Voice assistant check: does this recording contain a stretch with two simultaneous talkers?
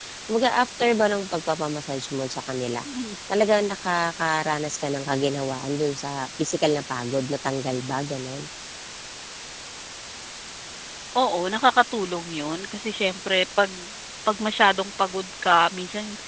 No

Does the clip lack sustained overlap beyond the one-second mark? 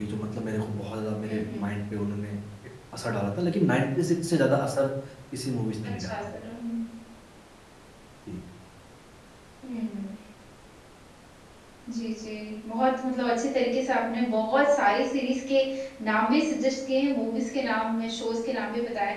Yes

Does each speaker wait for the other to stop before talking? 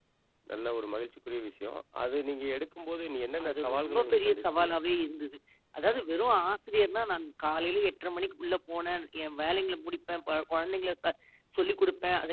No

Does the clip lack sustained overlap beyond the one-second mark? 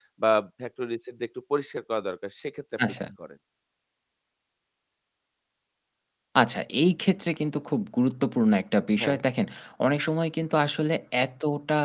Yes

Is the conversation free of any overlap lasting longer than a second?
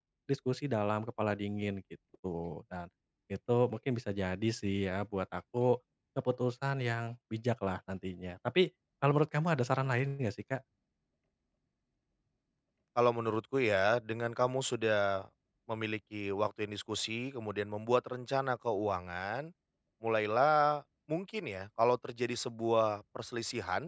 Yes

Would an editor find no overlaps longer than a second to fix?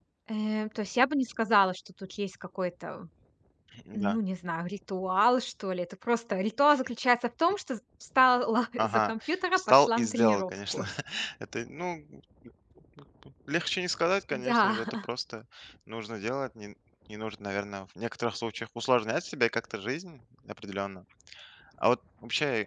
No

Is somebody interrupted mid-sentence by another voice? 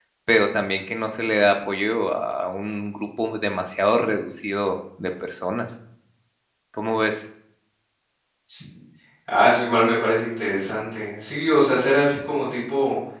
No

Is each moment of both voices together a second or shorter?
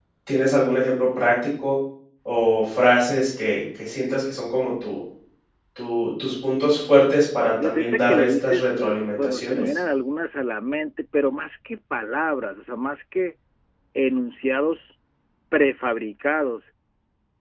No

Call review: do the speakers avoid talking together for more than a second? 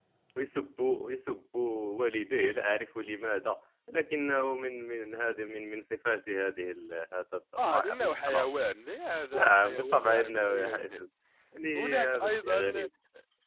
No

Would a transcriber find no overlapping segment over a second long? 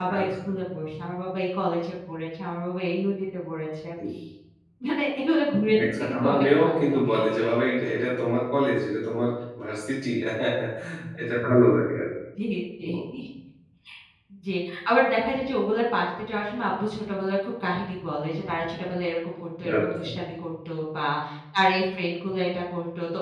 No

